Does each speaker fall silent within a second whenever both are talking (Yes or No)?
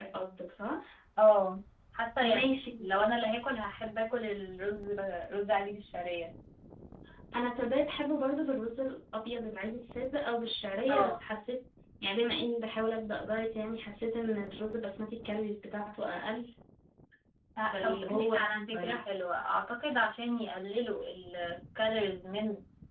No